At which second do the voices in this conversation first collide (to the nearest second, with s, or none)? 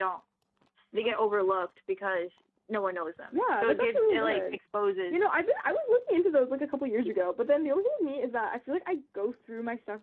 3 s